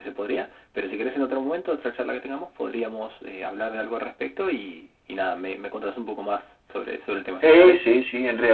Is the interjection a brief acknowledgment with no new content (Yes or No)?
No